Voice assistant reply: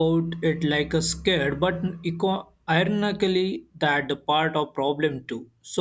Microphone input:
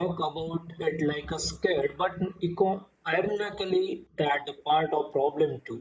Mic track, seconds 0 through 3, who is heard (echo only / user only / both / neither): echo only